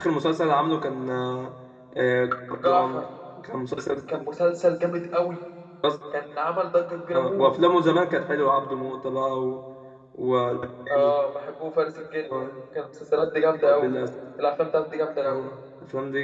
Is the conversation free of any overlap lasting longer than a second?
Yes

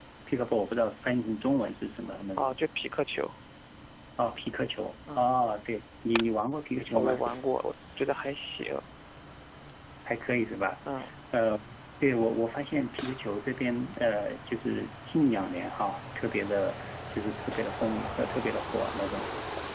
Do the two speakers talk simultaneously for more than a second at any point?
No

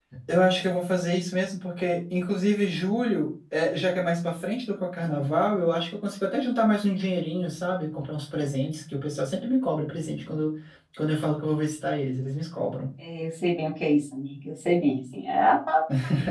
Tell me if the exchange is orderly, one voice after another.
Yes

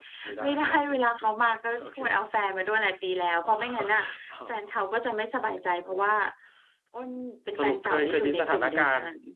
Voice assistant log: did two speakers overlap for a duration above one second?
Yes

